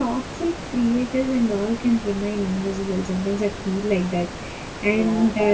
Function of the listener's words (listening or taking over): listening